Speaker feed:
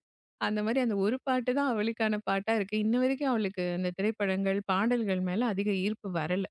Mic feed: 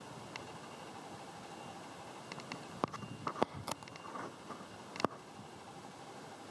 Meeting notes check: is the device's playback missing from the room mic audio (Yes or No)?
Yes